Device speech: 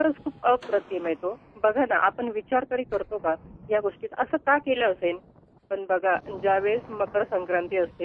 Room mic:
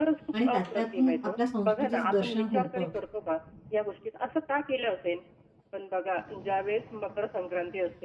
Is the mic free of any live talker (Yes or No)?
No